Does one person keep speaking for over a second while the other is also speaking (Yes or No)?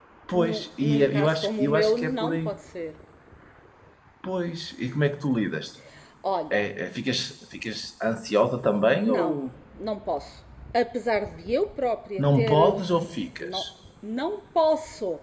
Yes